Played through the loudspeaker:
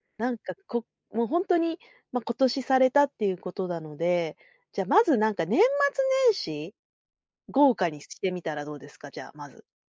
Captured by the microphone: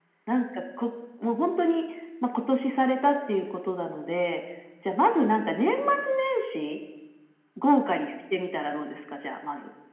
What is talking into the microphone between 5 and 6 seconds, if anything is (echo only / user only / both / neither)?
echo only